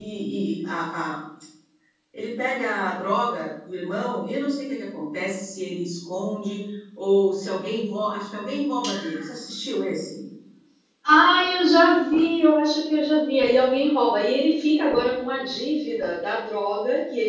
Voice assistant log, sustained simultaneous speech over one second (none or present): none